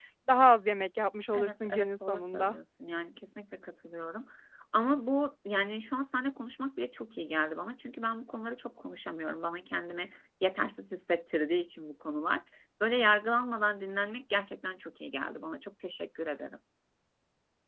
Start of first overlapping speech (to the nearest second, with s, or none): 1 s